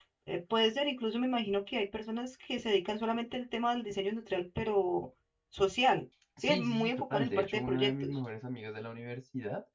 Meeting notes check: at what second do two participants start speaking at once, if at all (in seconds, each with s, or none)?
6.4 s